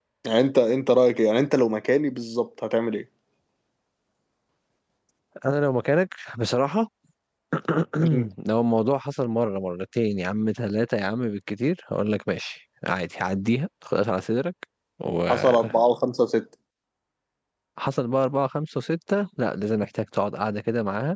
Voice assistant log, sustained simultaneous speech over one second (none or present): none